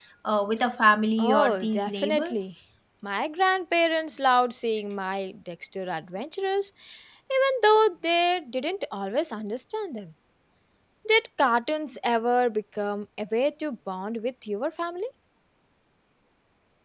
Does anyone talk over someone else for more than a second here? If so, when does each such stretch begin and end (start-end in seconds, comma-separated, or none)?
1.2-2.5